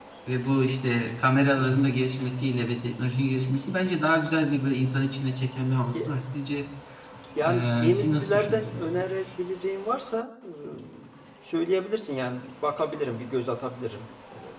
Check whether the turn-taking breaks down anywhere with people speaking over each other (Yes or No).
Yes